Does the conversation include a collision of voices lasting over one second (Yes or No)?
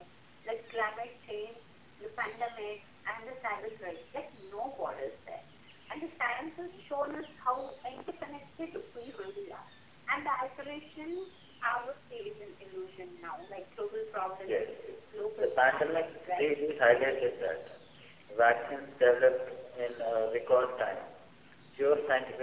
Yes